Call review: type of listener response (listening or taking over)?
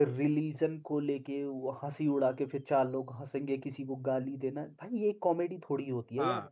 listening